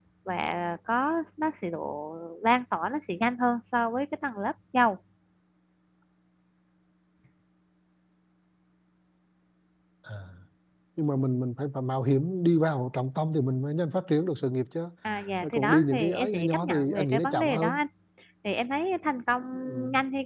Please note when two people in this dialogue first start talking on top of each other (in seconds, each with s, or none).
15.4 s